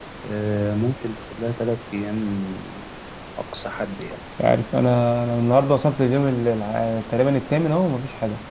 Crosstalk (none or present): none